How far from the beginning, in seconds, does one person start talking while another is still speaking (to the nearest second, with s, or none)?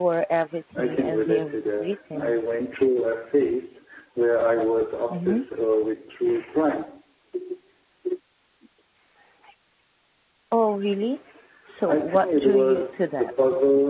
1 s